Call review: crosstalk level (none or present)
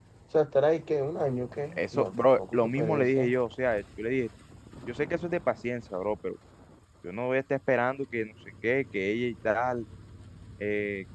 present